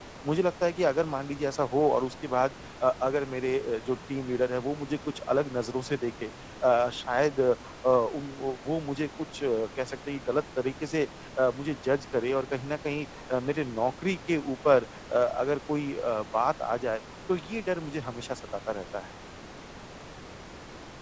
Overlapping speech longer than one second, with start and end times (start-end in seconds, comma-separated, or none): none